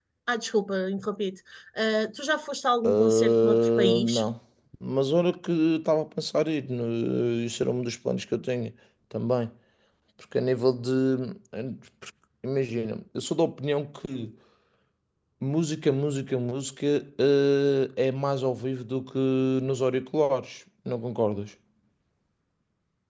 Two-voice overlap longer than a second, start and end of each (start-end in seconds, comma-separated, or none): 2.8-4.2